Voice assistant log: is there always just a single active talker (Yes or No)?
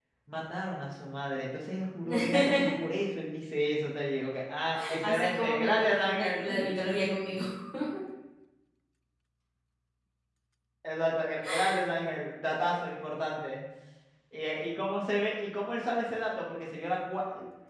No